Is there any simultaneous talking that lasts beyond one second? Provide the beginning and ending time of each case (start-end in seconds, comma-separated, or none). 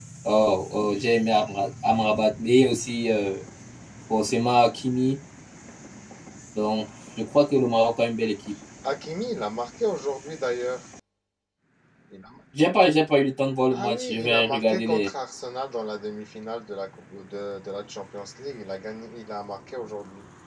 13.7-15.1